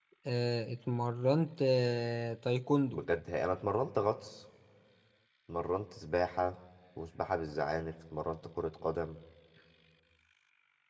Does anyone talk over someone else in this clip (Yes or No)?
No